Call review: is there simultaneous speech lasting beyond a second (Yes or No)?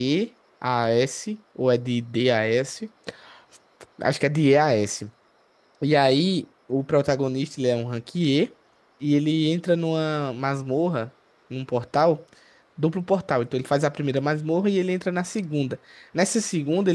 No